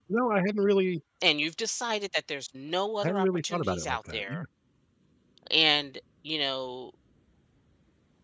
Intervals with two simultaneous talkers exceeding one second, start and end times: 3.0-4.4

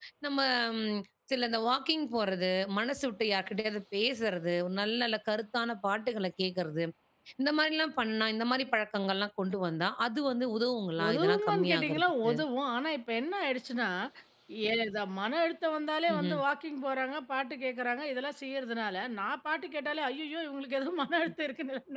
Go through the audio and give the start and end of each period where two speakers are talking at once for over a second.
11.1-12.3

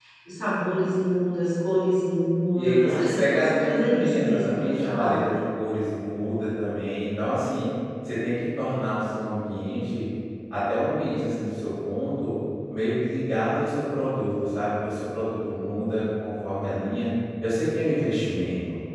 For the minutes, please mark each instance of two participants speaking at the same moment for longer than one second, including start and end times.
2.6-5.3

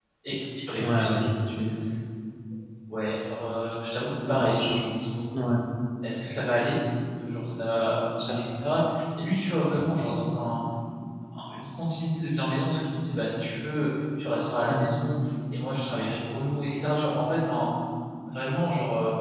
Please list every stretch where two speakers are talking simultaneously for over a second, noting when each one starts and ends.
none

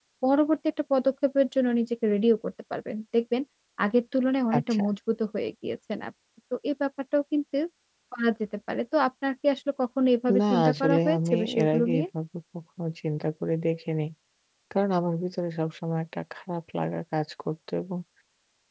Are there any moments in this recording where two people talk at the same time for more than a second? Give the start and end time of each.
10.4-12.0

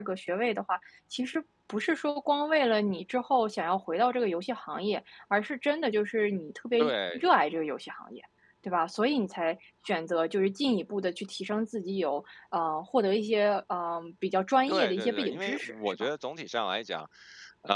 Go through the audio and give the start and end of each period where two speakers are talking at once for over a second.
14.7-16.1

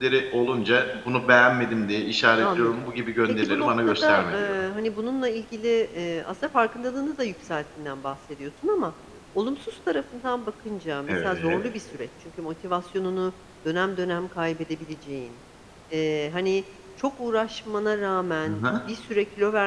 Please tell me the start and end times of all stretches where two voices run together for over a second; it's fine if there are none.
3.3-4.5

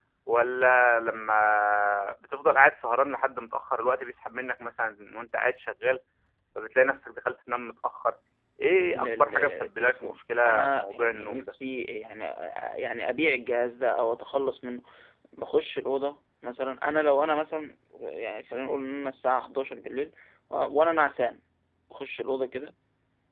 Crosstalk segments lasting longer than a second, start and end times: 8.8-11.5

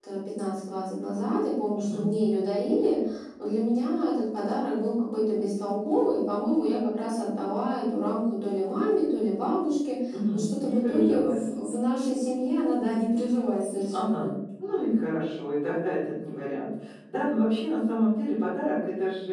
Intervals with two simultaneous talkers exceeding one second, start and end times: 10.1-11.4

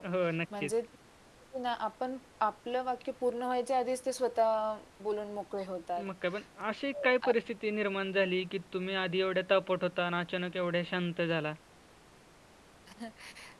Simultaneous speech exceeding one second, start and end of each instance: none

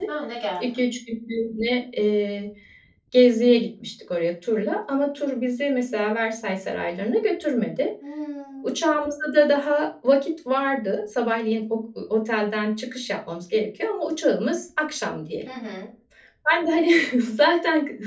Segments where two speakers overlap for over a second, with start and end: none

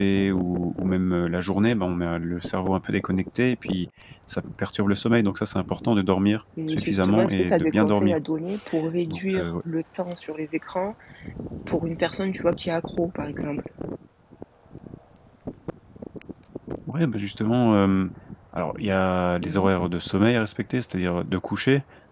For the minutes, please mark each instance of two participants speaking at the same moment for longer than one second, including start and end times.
6.7-8.2

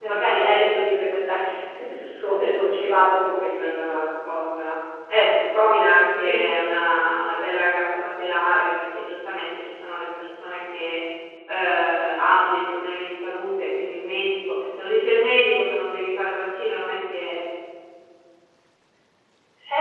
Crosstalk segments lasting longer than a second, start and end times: 2.3-4.0

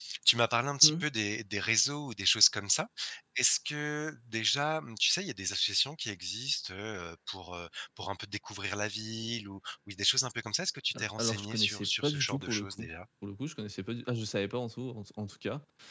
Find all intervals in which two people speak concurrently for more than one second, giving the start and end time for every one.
11.0-12.9

